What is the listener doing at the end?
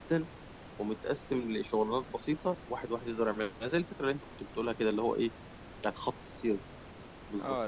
taking over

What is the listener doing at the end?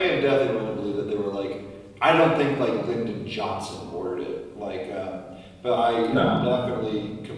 listening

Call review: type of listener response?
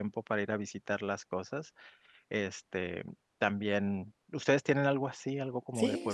taking over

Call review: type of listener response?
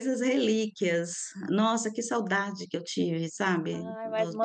taking over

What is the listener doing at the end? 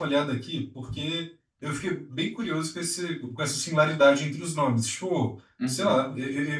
listening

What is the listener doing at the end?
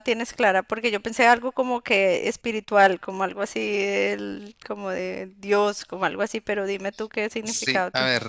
taking over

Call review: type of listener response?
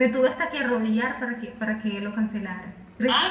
taking over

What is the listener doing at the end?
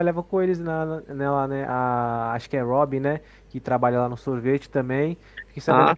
listening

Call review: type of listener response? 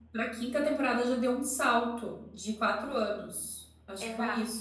taking over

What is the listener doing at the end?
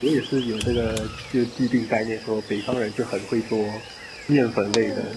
taking over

